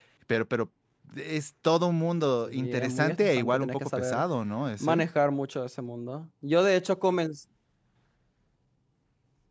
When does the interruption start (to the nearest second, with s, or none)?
2 s